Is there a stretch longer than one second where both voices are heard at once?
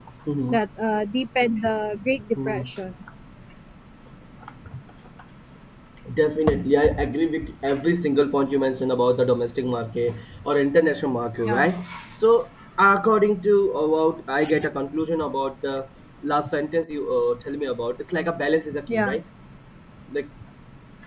No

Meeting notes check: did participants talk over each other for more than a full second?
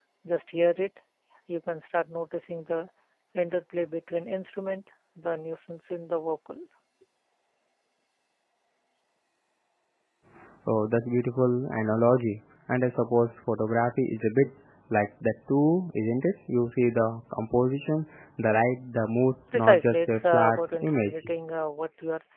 Yes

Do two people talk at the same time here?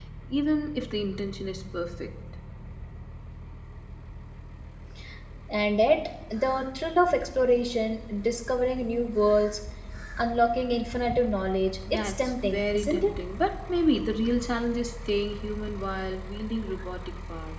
Yes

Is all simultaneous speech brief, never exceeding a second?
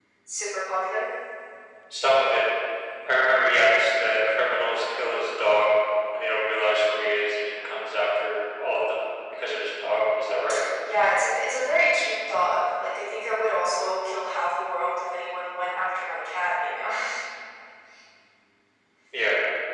Yes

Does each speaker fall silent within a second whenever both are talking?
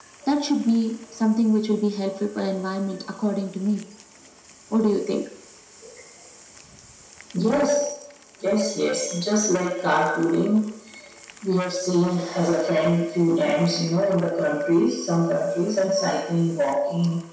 Yes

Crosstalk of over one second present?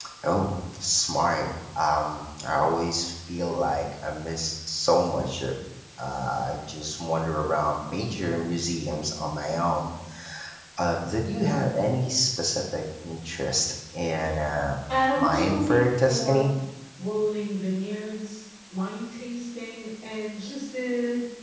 Yes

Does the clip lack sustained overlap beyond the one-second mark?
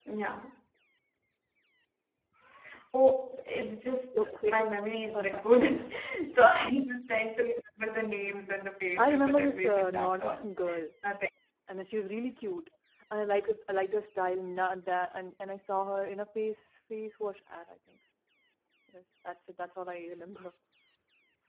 No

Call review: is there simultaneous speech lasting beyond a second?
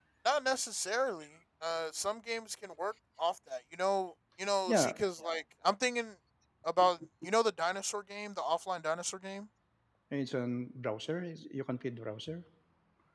No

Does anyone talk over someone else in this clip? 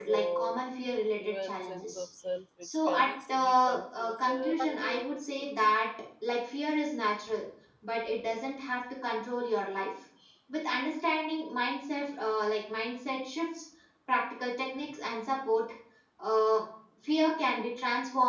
Yes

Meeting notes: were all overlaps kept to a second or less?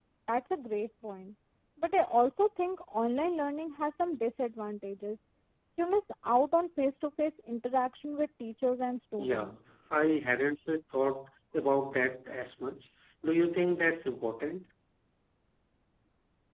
Yes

